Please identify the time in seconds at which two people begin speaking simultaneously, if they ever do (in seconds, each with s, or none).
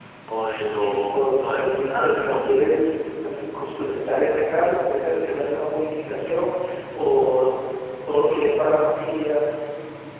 0.7 s